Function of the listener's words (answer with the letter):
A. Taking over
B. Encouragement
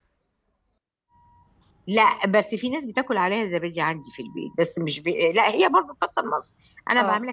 B